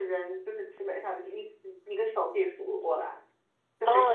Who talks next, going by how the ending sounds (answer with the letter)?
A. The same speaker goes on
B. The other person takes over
B